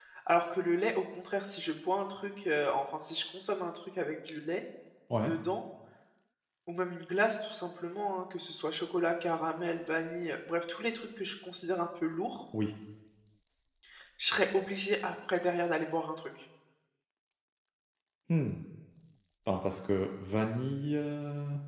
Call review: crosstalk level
none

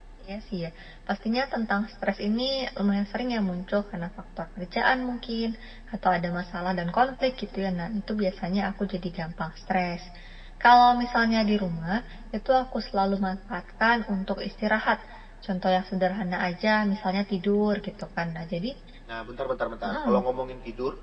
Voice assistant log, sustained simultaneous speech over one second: none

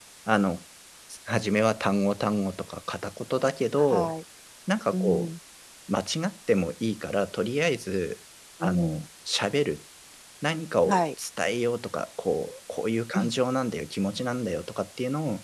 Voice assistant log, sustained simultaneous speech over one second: none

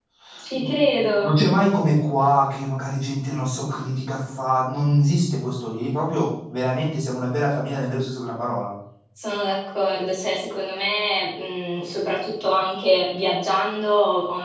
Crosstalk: none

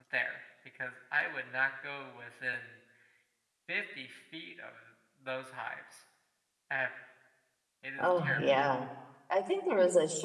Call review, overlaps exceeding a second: none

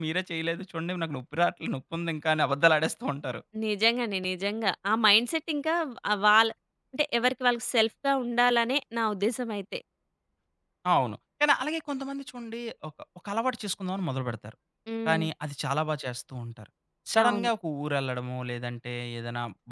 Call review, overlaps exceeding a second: none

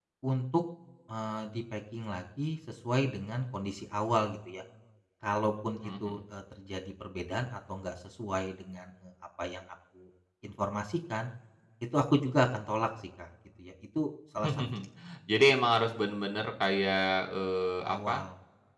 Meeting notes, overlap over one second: none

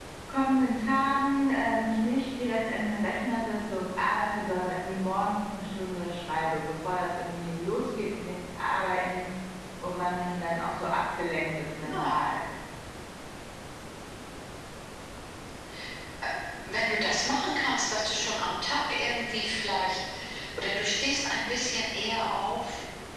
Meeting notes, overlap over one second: none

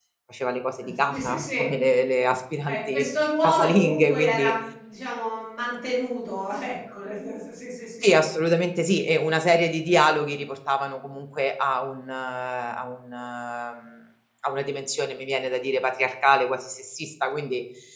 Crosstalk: present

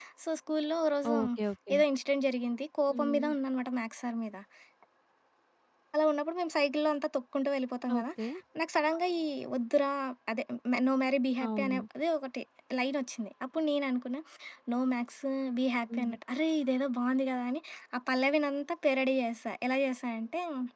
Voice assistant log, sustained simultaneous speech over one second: none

